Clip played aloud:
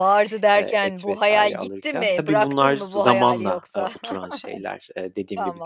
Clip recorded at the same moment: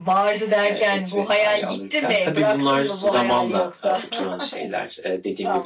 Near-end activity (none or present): none